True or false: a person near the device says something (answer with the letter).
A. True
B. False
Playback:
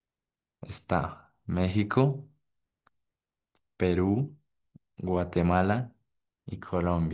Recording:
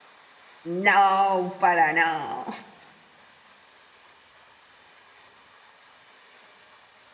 A